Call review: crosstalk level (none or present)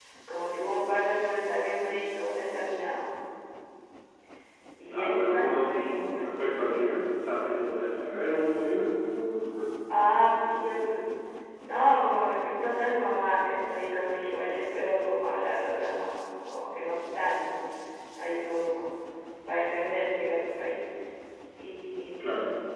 present